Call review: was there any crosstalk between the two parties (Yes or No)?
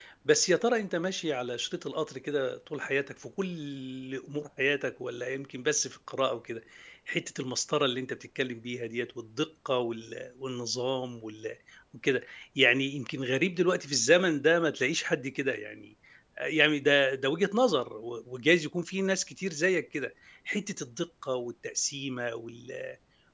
No